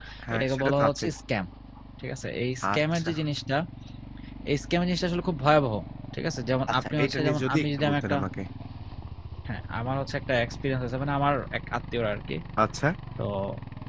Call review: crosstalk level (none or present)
present